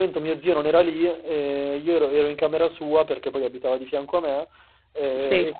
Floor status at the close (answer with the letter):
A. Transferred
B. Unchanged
B